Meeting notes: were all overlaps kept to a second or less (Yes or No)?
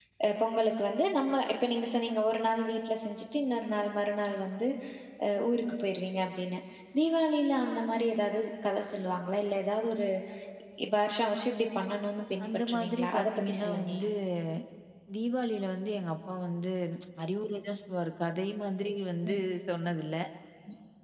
No